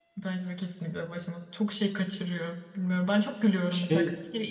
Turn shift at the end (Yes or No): No